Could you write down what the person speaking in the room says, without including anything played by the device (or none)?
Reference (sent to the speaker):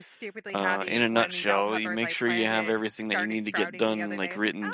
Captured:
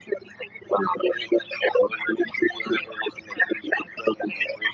none